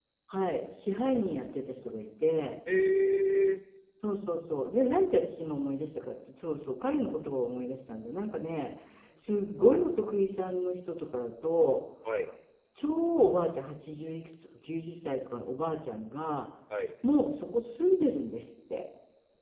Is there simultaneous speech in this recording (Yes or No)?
No